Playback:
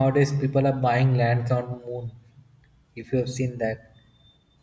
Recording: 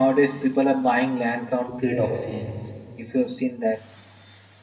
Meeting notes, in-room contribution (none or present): present